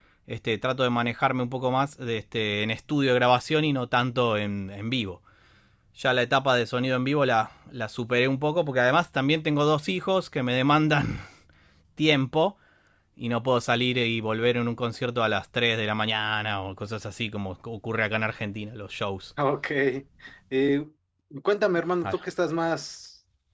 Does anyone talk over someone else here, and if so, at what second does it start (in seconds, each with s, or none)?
none